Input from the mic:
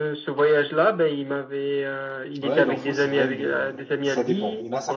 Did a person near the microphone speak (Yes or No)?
Yes